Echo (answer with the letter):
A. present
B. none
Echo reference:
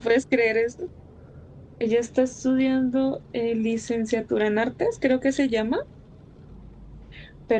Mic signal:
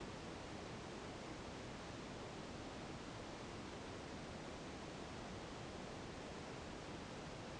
B